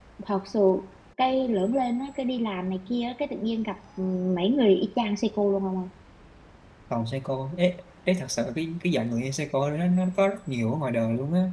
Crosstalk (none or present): none